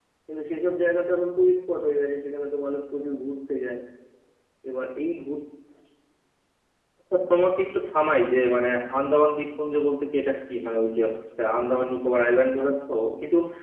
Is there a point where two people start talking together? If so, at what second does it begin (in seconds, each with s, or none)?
none